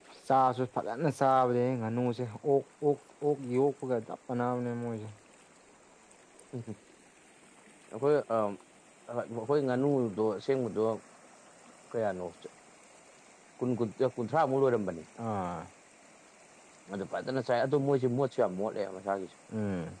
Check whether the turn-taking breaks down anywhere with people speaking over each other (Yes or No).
No